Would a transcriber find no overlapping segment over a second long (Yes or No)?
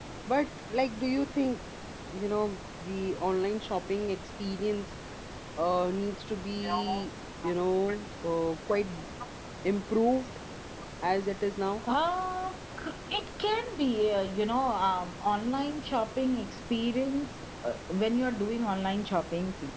Yes